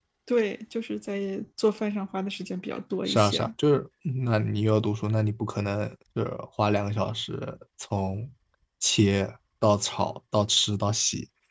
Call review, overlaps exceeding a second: none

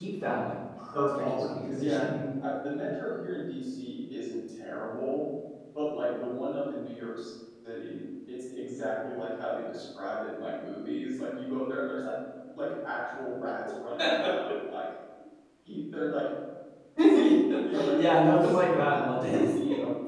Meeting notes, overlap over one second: present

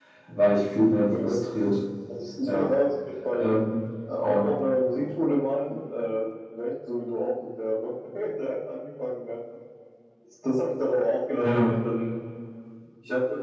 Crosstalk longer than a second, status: none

